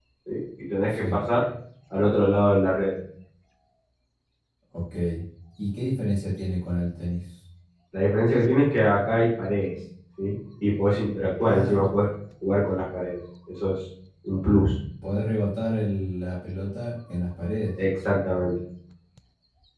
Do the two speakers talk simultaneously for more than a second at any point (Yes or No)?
No